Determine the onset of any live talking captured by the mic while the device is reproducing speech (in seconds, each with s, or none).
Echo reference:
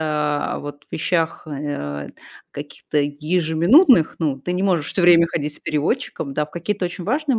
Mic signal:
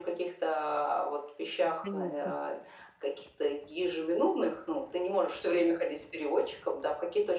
1.8 s